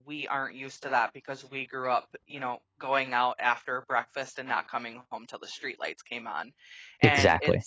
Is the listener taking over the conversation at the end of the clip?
No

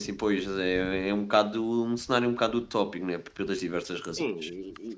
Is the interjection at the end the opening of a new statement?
Yes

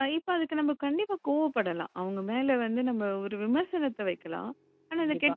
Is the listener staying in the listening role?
Yes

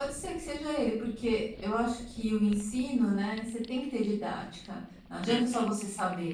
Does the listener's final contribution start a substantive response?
No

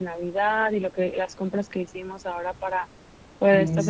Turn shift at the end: No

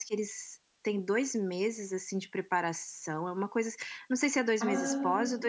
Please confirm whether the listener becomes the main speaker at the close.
No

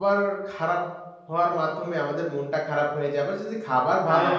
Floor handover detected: No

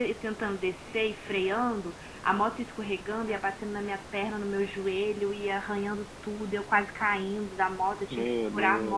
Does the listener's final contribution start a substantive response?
No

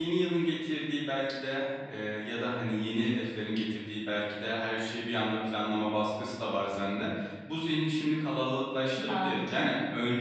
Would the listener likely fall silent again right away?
Yes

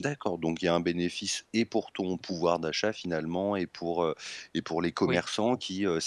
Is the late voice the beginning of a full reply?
No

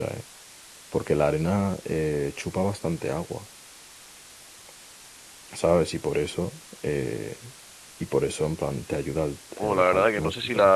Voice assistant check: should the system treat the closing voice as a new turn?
Yes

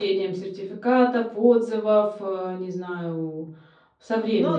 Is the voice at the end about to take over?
Yes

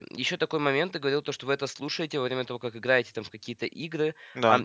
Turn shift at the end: No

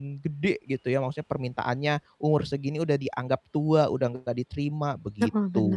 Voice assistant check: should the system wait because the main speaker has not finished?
No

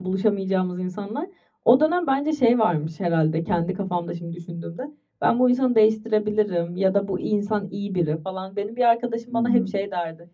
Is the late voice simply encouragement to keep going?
Yes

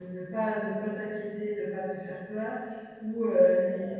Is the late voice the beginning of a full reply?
No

